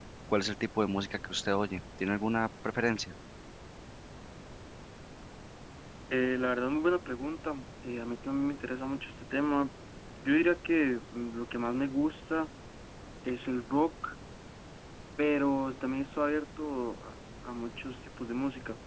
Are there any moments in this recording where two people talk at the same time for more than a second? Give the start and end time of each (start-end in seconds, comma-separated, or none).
none